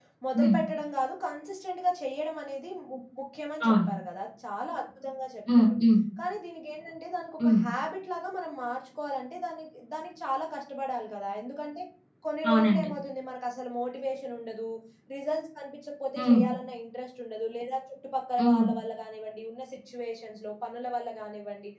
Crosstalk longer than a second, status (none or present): none